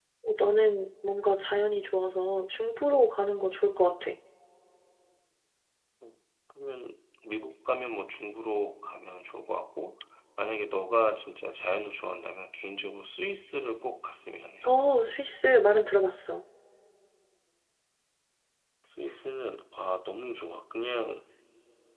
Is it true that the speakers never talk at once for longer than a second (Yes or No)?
Yes